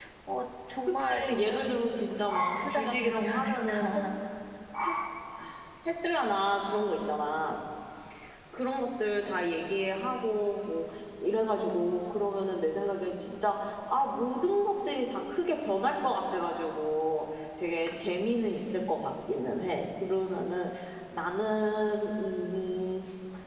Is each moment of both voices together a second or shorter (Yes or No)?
No